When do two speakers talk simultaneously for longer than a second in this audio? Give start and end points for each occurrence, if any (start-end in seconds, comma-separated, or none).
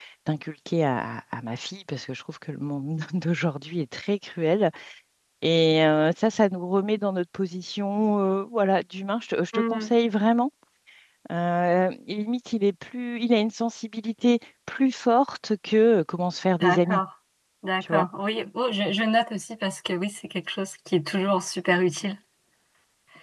none